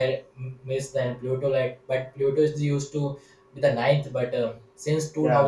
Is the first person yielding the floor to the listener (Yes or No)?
No